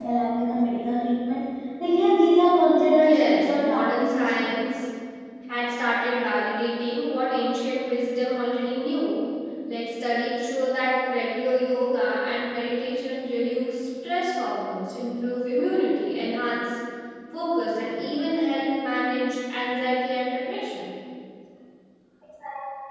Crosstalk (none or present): present